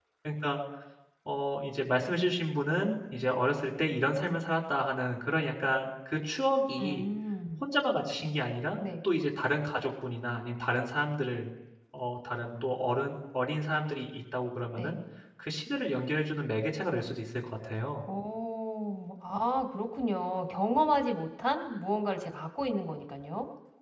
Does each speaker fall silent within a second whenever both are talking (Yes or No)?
Yes